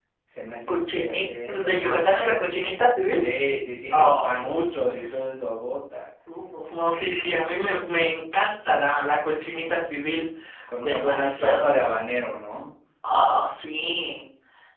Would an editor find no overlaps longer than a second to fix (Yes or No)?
No